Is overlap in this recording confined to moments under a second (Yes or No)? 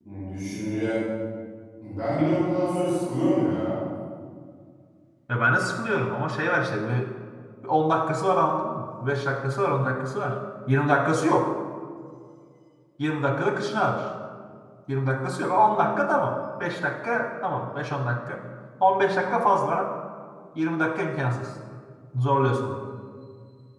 Yes